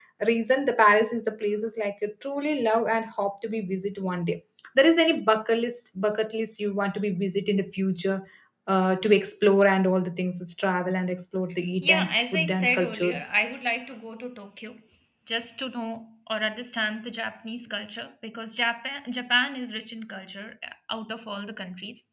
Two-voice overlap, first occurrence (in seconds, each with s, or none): 11.8 s